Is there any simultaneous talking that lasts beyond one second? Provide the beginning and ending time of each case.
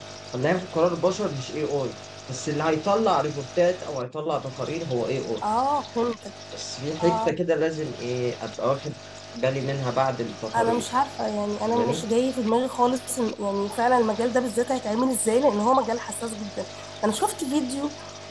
none

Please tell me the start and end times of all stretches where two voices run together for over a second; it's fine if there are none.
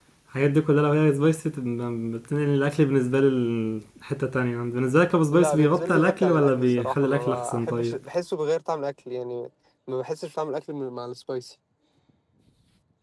5.3-8.0

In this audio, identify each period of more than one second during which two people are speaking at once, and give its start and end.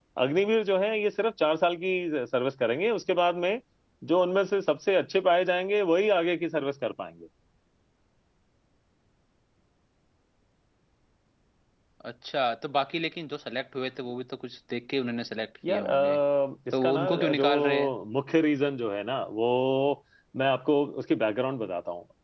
16.7-17.9

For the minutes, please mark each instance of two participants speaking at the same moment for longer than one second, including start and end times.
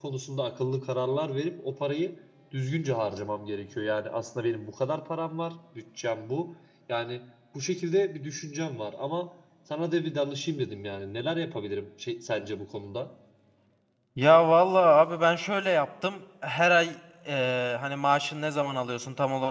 none

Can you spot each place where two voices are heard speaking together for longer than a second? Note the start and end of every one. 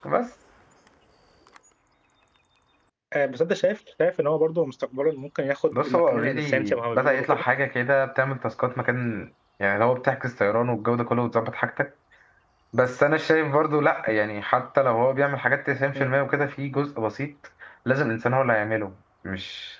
5.7-7.4

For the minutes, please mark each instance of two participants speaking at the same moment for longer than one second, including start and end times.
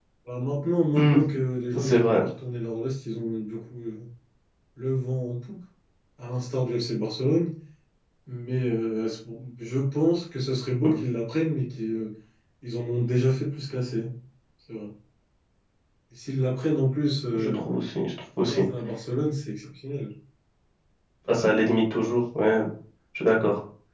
none

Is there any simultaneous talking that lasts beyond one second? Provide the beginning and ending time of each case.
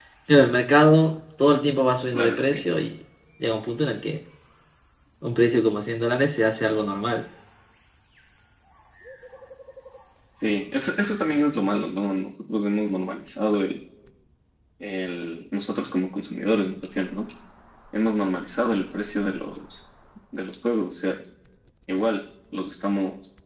none

